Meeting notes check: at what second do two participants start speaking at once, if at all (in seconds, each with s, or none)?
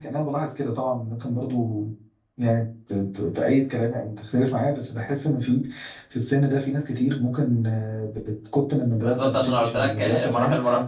9.0 s